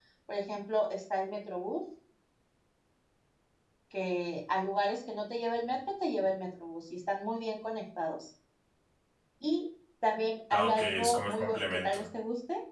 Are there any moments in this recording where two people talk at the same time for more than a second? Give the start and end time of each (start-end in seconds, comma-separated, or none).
10.5-12.1